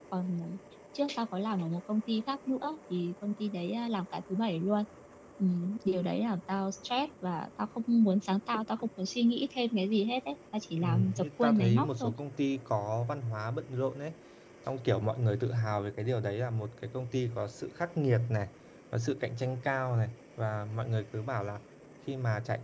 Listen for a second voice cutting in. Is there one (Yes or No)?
Yes